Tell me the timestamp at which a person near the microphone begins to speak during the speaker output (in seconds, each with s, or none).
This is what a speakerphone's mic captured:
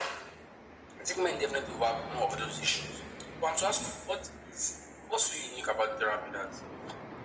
none